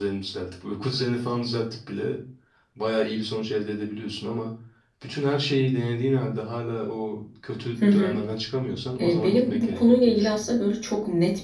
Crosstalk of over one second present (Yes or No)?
Yes